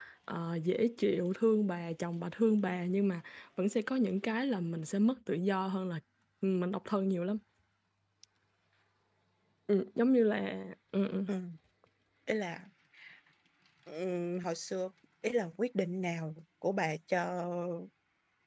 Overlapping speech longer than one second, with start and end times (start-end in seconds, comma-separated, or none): none